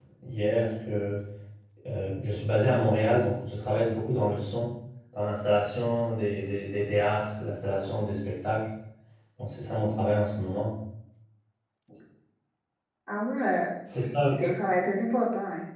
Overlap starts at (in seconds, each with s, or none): none